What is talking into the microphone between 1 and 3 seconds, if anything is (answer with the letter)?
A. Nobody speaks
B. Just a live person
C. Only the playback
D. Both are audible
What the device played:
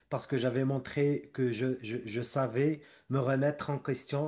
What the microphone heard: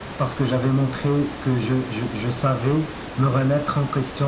C